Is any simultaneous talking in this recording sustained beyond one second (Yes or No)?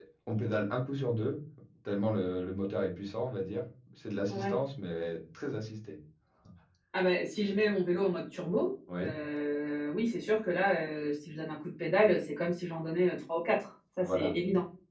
No